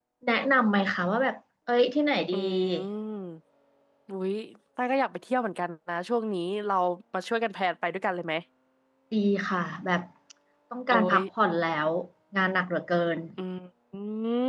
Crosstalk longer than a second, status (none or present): none